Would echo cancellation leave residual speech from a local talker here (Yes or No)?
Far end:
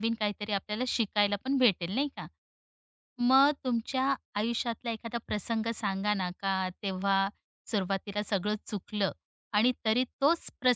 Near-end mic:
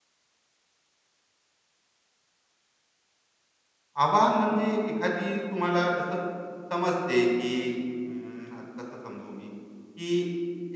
Yes